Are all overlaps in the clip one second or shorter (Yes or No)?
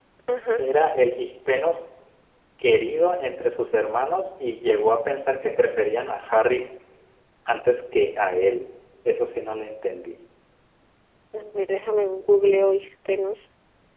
Yes